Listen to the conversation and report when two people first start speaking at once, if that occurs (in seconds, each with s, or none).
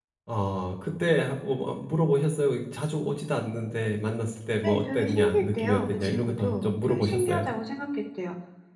4.6 s